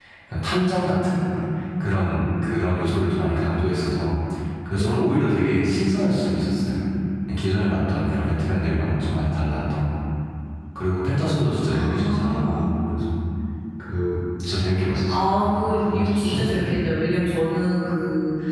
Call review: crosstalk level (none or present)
present